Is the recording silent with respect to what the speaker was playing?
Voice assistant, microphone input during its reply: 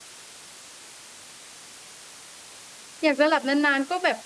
Yes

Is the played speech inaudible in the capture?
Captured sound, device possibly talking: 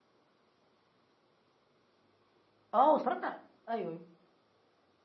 Yes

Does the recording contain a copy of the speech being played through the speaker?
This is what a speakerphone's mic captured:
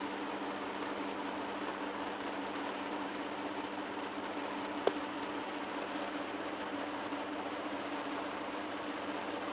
No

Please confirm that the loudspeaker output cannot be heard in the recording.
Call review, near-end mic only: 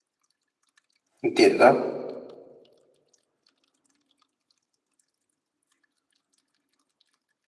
Yes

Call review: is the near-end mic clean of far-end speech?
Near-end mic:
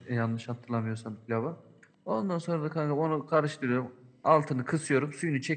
No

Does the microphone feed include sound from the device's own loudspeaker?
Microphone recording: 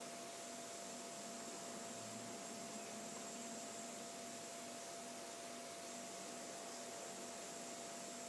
No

